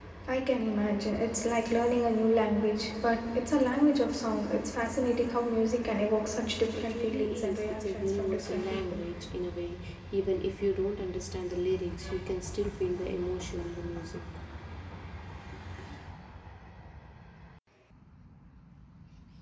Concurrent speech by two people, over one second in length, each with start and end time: 6.7-9.0

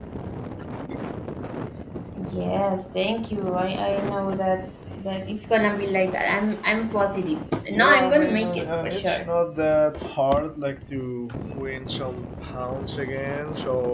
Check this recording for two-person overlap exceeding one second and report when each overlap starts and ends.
7.7-9.2

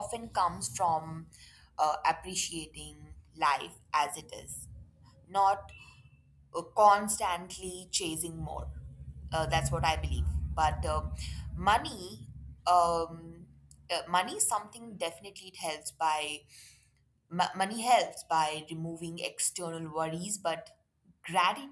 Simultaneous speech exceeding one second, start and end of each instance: none

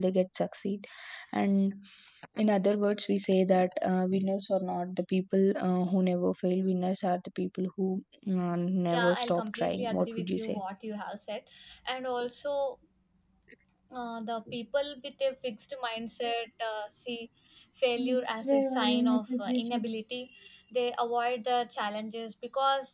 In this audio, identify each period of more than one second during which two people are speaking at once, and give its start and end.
8.9-10.6, 18.0-19.9

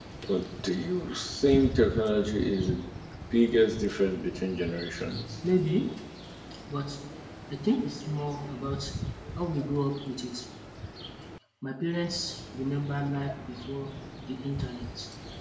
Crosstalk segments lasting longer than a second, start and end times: none

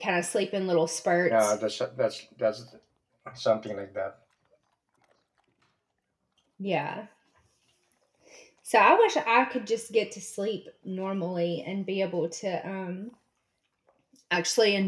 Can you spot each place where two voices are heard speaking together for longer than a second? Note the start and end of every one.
none

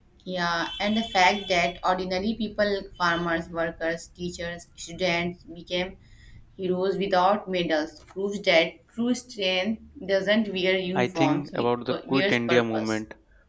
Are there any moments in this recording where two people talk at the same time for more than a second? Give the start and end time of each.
10.9-13.0

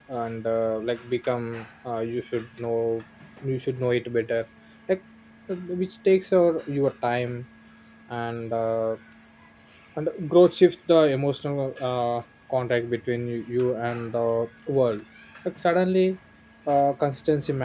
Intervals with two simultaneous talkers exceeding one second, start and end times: none

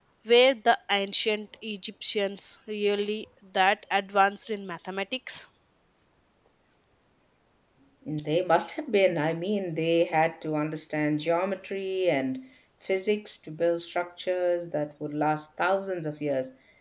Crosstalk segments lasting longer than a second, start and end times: none

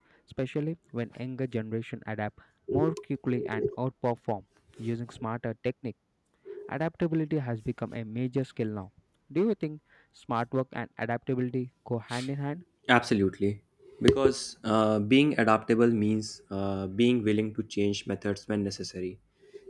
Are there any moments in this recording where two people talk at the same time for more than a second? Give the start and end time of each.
none

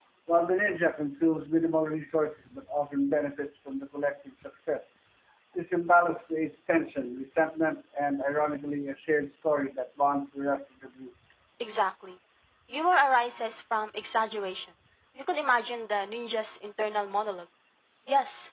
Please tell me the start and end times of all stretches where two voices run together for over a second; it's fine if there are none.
none

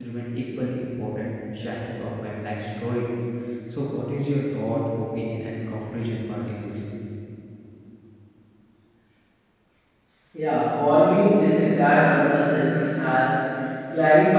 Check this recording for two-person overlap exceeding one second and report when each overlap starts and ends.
none

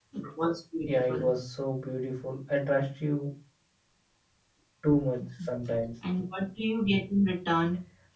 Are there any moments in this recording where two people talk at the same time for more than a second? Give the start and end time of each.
none

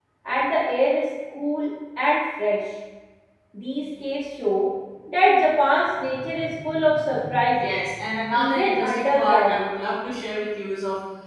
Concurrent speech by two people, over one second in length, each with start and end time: 8.3-9.6

